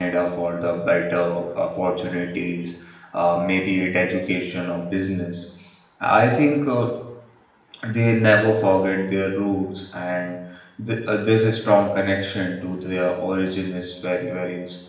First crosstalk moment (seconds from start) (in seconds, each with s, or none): none